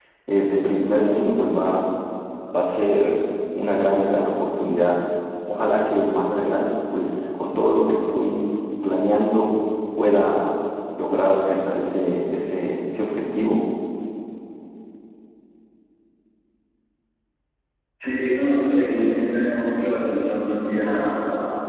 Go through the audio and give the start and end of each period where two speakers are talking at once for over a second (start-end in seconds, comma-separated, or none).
none